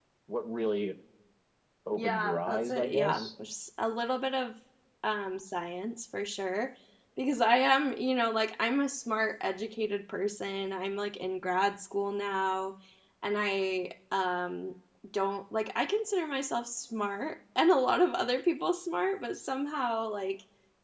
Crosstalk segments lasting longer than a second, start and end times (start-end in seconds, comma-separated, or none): 1.9-3.3